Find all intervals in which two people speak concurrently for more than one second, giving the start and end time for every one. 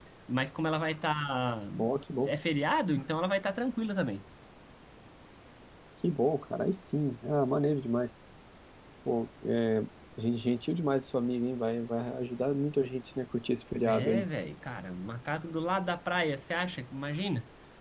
none

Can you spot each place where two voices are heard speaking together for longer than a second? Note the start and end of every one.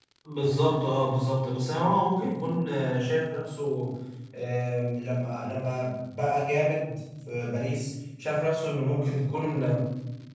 none

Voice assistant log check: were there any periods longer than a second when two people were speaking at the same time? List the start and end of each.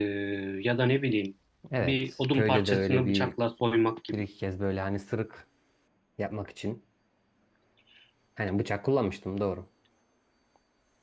1.8-3.3

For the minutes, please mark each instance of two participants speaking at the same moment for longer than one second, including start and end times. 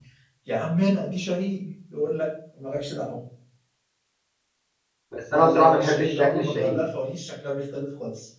5.3-6.8

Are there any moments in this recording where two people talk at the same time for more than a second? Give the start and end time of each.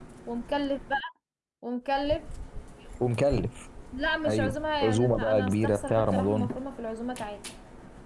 4.3-6.5

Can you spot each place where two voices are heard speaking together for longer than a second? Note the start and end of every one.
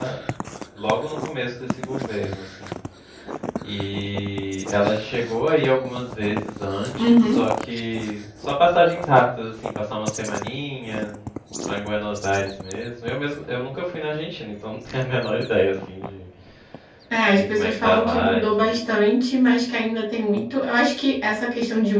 17.3-18.8

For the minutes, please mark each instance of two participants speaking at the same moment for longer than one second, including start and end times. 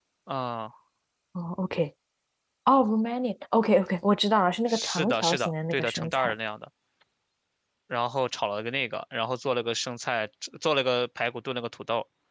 4.7-6.3

